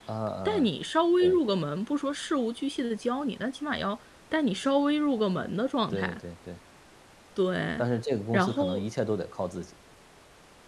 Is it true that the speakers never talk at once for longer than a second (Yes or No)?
Yes